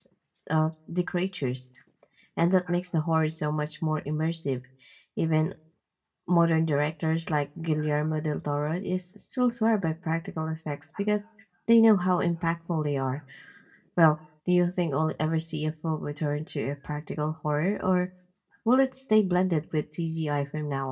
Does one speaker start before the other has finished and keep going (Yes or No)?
No